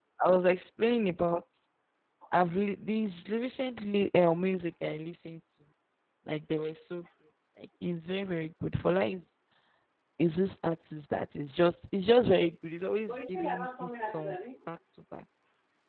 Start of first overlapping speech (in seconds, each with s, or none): 13.1 s